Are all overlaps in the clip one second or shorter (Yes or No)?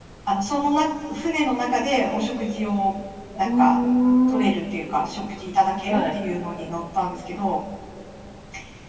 Yes